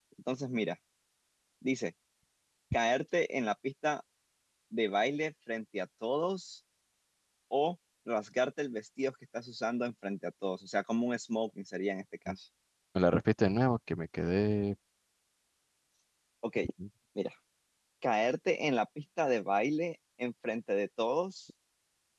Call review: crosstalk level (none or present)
none